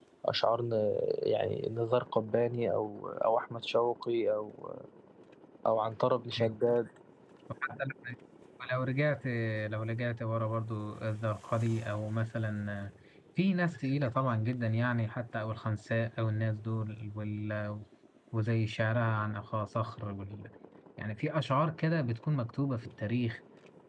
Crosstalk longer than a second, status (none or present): none